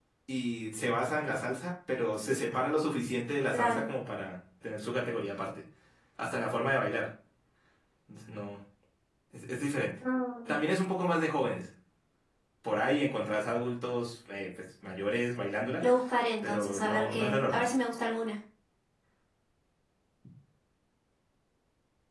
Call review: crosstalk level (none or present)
present